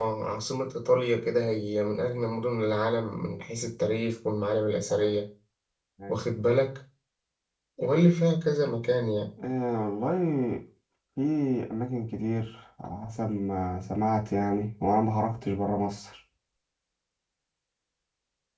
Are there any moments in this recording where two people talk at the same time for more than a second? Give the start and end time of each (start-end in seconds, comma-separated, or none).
none